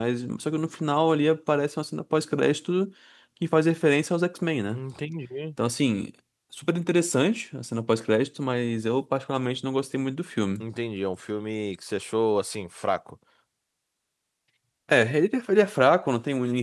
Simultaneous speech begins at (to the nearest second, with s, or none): none